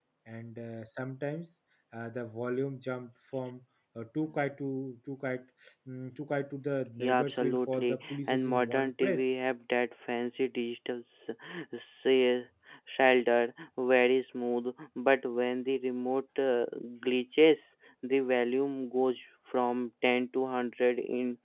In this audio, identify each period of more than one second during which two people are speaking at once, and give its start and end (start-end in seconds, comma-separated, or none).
7.0-9.3